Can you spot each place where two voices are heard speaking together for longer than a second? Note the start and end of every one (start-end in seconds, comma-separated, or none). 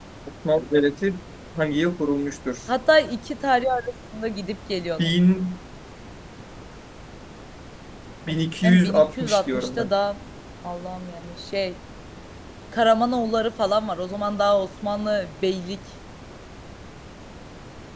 8.6-9.9